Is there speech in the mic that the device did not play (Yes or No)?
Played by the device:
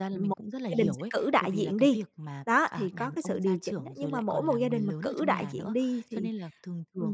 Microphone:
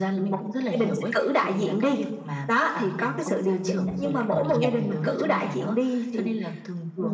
Yes